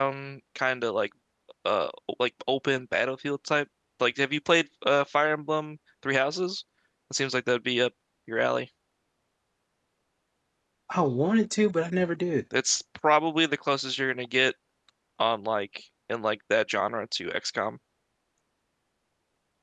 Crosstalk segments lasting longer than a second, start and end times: none

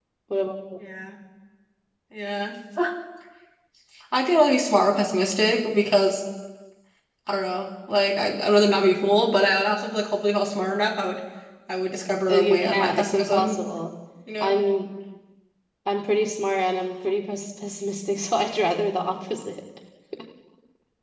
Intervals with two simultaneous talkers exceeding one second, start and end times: 12.3-13.6

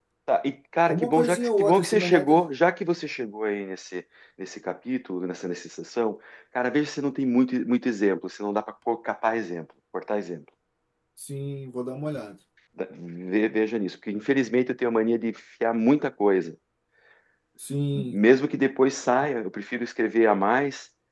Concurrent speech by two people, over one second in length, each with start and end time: 0.9-2.4

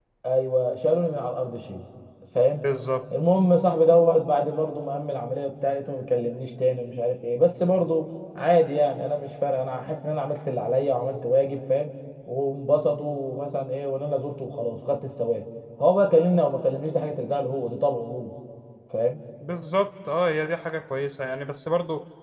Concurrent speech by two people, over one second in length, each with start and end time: none

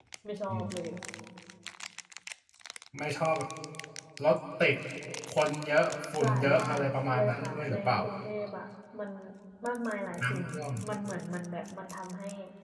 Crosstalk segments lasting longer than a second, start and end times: 6.2-8.0

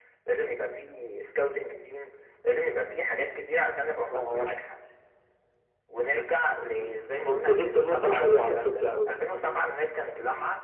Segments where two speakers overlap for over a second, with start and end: 7.3-9.2

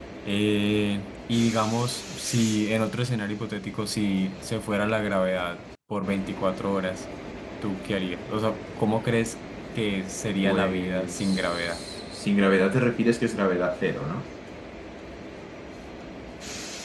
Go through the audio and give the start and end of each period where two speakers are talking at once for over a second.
10.4-11.8

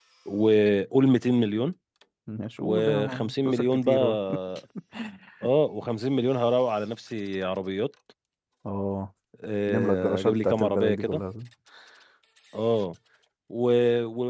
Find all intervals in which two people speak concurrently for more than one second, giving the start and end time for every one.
2.6-4.2, 9.7-11.2

